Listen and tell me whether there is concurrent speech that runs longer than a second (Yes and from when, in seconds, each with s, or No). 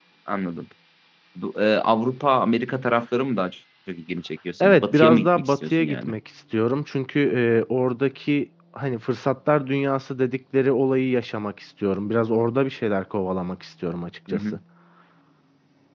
Yes, from 4.6 s